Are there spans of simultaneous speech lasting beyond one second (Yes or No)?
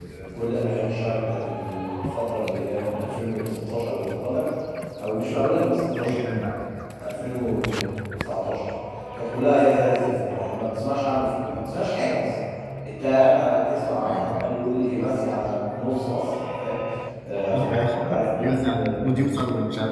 Yes